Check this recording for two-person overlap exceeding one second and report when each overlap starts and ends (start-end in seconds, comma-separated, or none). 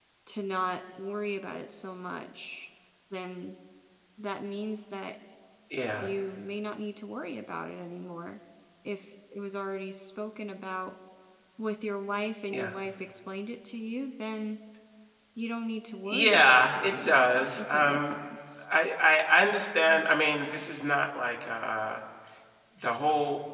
16.1-18.1